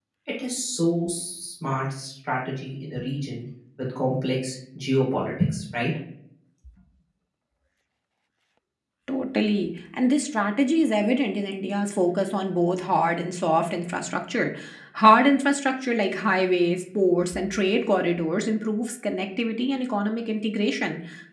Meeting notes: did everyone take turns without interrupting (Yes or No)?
Yes